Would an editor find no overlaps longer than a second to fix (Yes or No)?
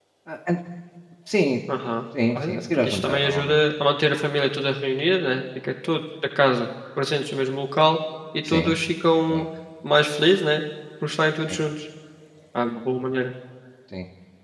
No